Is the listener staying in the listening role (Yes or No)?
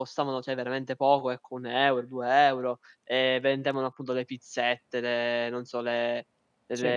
Yes